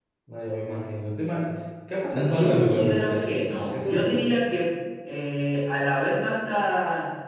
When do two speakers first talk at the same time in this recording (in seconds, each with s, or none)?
2.1 s